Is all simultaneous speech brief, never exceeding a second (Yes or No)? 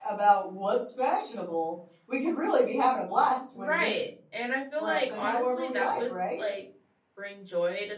No